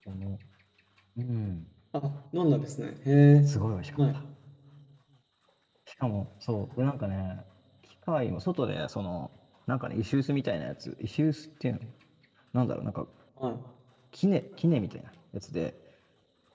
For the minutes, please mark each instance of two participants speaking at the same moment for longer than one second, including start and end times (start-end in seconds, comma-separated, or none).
none